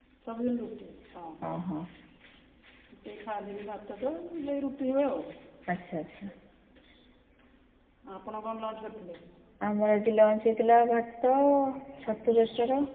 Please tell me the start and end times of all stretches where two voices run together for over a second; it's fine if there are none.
none

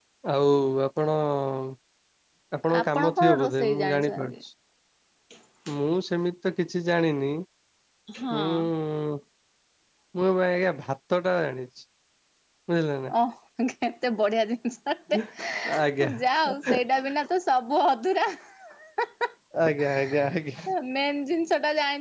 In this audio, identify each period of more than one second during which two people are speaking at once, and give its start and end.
2.8-4.3

